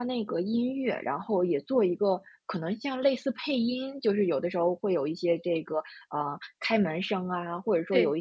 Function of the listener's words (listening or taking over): listening